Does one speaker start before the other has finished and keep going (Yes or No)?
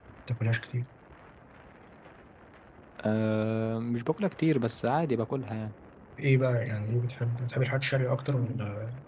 No